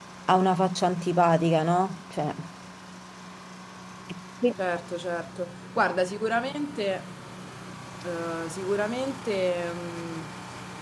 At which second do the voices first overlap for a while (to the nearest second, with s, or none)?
none